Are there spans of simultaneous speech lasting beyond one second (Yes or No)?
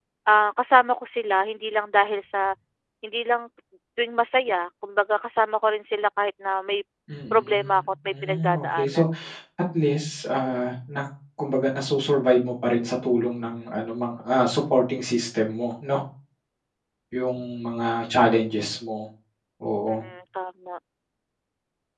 Yes